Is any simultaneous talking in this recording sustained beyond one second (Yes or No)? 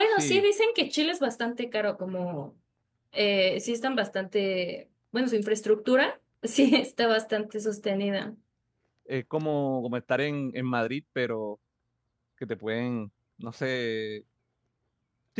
No